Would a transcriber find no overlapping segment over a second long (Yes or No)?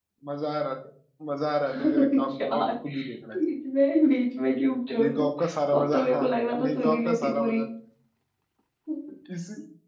No